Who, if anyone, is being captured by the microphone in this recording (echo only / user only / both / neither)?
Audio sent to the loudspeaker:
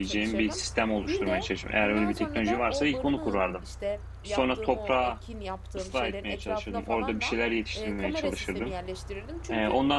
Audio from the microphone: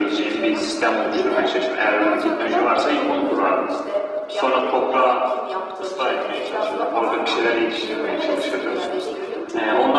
both